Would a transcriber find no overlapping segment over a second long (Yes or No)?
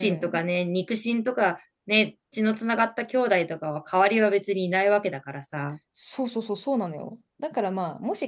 Yes